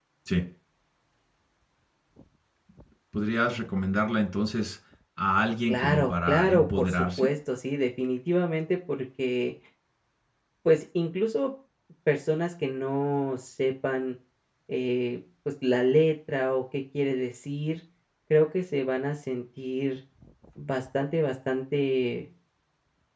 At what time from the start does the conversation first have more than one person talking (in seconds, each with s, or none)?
5.7 s